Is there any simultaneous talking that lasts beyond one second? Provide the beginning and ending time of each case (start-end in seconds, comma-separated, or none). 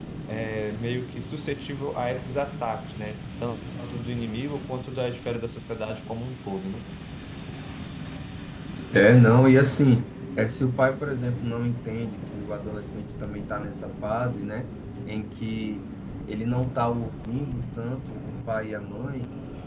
none